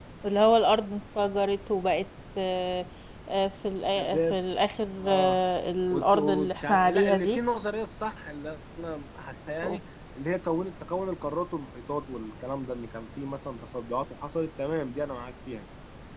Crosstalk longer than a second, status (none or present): present